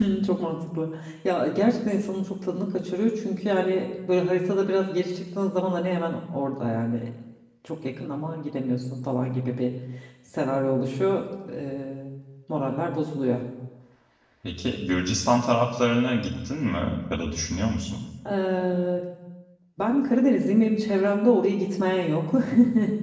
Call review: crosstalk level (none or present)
none